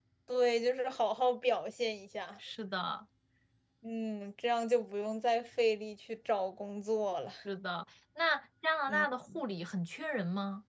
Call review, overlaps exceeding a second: none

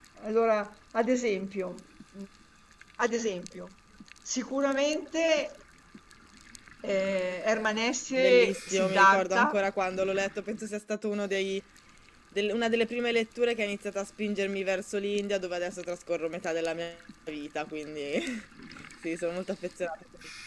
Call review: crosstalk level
present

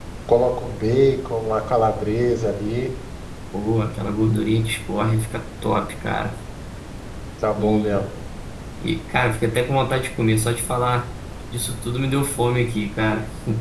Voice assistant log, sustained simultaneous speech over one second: none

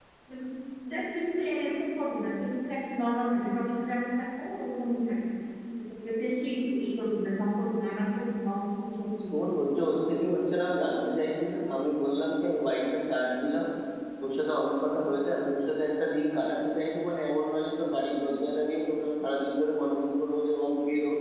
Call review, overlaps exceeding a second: none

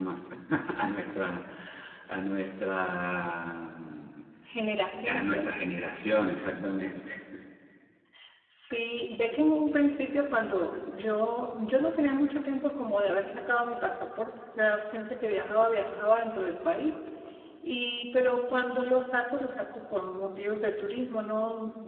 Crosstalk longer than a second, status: none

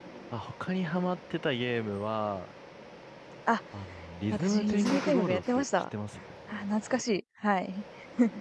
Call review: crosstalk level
present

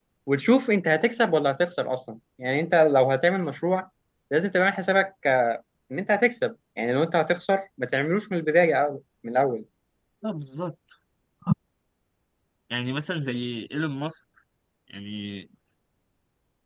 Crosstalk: none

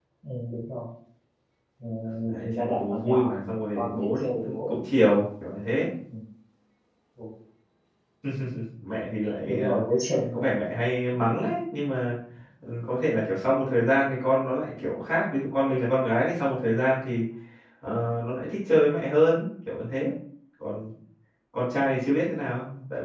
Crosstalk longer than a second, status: present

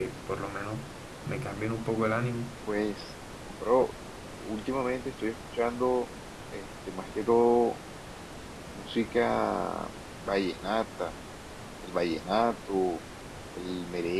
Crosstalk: none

